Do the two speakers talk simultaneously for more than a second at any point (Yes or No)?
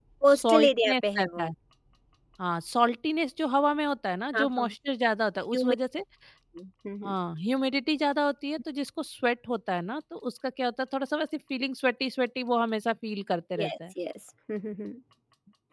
Yes